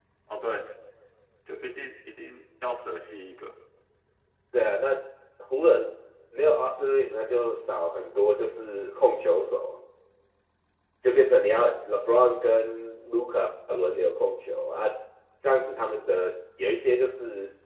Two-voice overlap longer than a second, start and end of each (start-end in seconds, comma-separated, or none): none